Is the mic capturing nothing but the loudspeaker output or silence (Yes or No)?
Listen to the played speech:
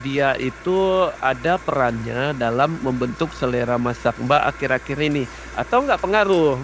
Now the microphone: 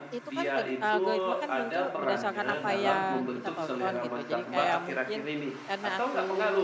No